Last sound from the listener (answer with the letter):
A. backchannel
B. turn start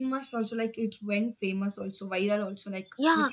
B